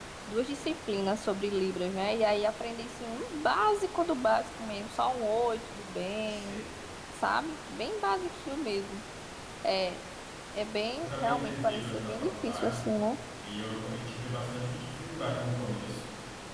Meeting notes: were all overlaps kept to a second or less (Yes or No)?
No